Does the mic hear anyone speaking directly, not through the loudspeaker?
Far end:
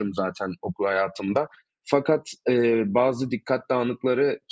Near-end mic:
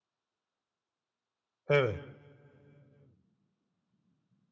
Yes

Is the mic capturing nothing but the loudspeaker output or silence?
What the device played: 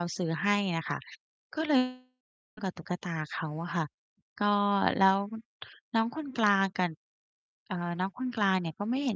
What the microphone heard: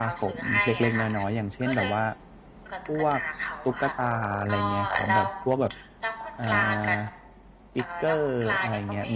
No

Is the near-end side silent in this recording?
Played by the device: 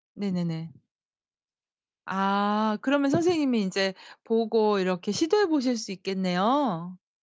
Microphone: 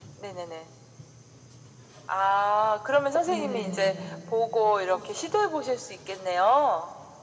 No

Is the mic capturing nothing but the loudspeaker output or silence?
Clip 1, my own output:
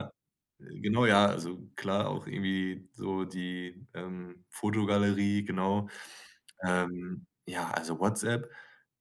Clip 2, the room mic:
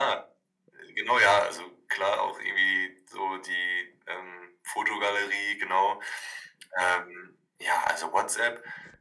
Yes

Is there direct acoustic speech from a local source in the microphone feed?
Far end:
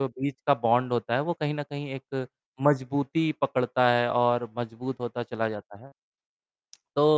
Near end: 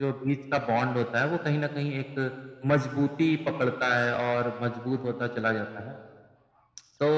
No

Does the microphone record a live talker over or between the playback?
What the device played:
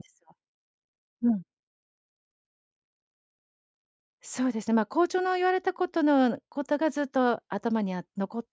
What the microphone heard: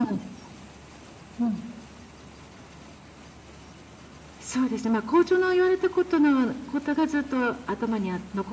No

